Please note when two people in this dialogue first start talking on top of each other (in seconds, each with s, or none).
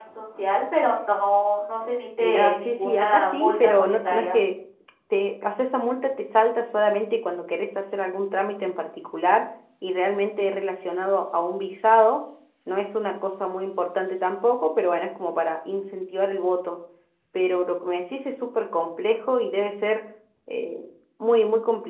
2.2 s